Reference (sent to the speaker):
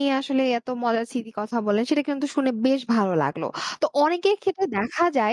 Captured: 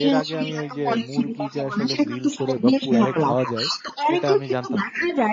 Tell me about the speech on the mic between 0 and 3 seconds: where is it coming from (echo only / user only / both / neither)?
both